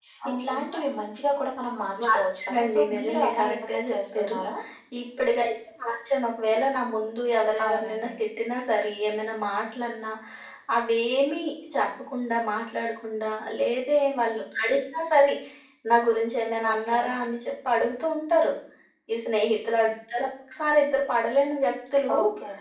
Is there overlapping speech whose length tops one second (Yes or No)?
Yes